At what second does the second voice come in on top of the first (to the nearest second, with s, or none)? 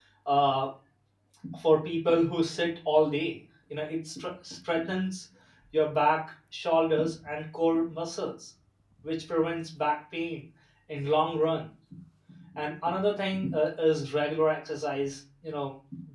none